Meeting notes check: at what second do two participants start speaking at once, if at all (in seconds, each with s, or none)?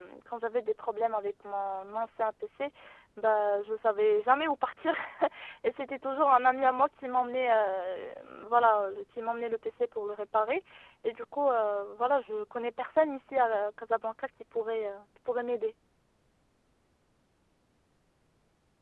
none